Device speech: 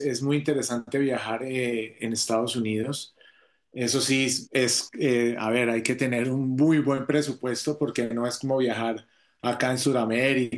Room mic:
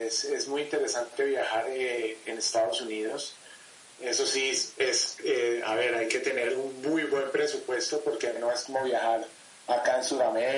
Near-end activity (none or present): none